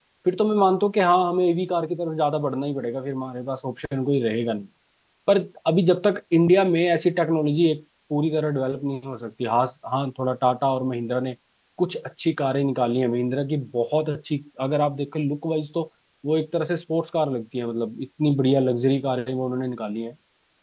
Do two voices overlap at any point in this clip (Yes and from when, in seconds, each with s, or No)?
No